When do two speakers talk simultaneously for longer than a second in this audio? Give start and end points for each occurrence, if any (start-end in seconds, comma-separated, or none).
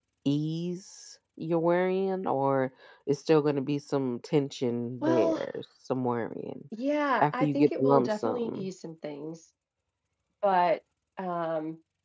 7.2-8.7